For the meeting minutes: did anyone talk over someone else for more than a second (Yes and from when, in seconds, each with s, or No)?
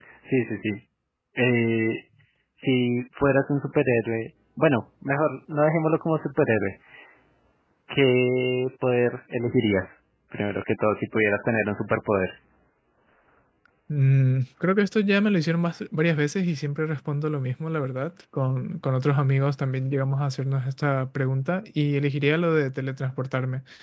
No